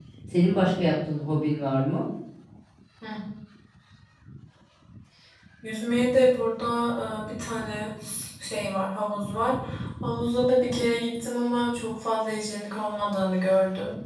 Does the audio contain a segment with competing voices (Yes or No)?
No